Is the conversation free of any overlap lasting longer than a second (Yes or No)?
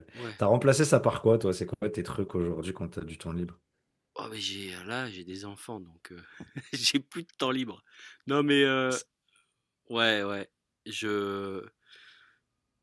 Yes